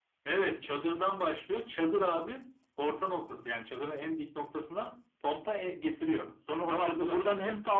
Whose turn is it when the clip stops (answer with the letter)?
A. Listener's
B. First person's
A